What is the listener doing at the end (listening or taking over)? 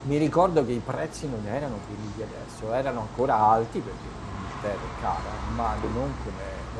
listening